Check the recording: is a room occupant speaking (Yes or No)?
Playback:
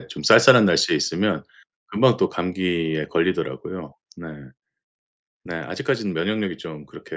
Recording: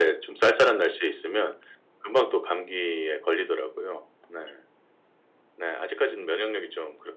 No